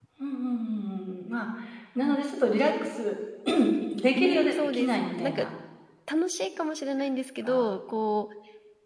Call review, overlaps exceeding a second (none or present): present